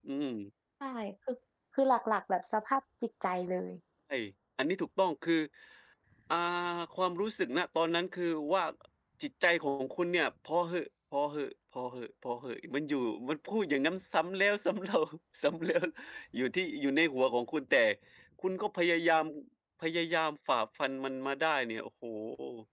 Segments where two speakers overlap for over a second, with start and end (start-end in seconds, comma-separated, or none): none